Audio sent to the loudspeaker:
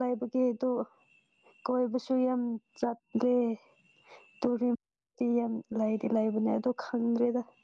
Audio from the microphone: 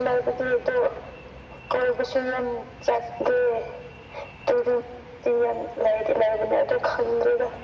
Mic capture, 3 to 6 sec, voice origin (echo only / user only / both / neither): echo only